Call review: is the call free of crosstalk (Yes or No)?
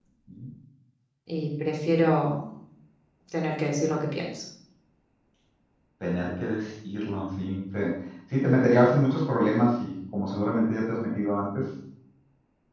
Yes